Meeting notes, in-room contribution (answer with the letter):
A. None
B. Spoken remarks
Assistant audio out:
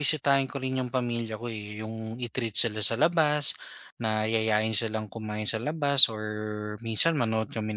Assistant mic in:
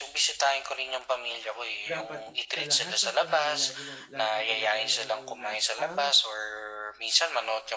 B